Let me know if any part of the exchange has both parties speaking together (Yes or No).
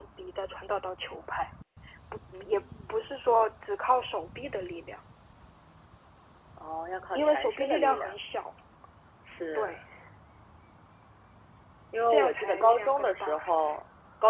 Yes